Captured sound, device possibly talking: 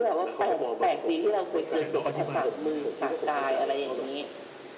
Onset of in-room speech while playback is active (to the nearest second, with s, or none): 2 s